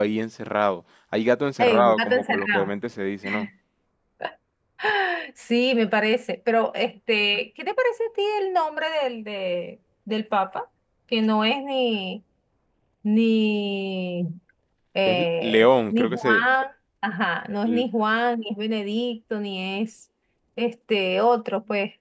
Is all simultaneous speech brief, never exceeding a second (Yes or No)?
No